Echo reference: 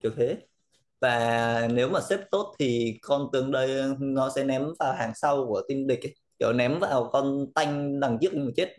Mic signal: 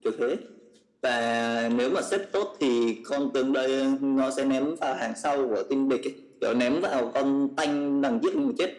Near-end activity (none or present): none